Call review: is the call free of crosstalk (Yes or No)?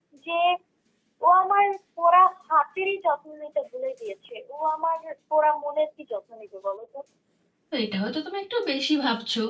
Yes